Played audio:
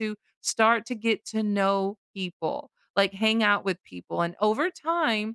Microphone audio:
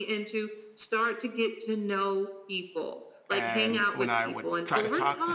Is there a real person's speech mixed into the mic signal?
Yes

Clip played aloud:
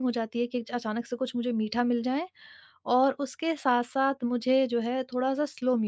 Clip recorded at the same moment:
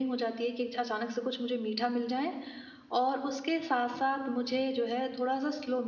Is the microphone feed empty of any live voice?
Yes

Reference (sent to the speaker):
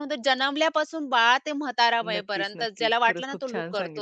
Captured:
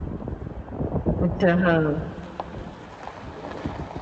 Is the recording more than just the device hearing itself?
Yes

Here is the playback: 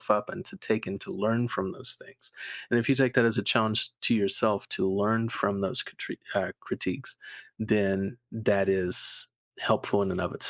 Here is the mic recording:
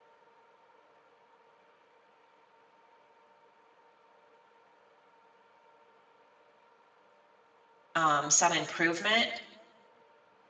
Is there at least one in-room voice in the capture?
Yes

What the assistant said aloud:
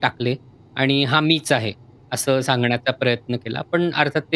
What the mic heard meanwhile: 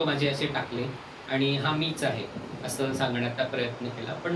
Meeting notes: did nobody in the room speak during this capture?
Yes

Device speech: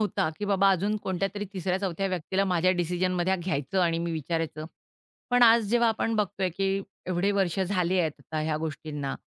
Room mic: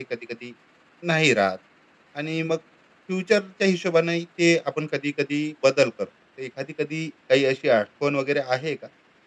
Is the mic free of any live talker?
No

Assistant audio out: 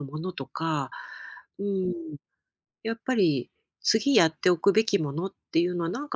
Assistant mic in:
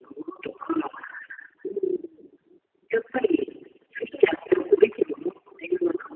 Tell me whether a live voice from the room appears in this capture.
No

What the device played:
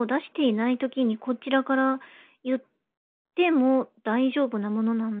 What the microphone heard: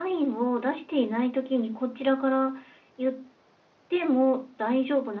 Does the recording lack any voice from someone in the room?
Yes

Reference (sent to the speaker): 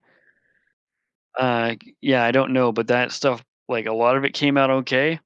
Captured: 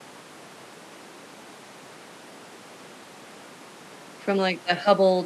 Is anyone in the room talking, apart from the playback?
Yes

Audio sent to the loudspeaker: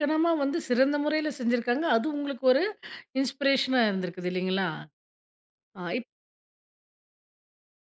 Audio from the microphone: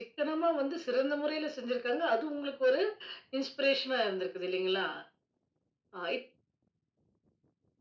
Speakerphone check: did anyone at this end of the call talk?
No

